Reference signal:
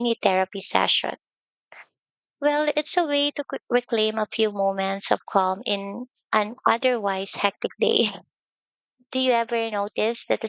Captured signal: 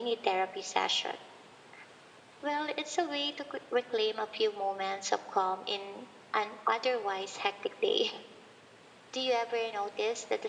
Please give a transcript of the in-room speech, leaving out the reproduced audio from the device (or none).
none